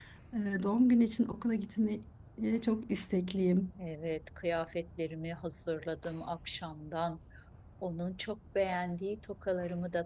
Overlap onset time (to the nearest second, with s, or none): none